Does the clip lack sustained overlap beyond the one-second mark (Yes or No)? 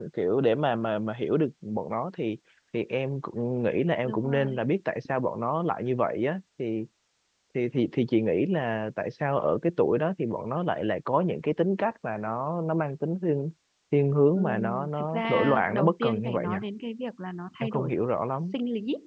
No